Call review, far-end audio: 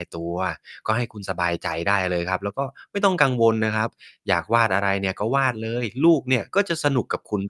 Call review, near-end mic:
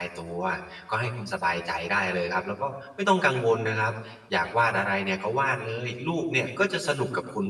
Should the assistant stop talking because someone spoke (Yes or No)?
No